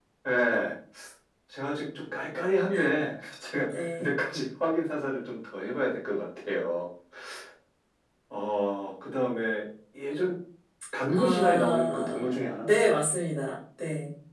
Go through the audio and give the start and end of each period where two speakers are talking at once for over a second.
11.1-13.0

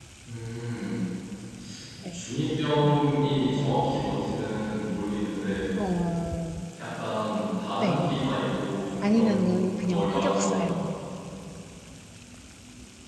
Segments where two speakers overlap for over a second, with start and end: 9.0-10.8

